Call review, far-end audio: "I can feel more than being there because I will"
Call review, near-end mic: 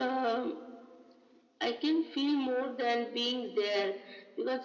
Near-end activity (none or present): none